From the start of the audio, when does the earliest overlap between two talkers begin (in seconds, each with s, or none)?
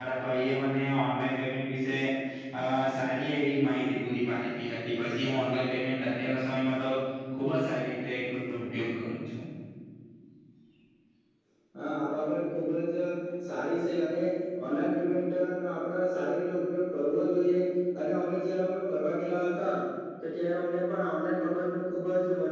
none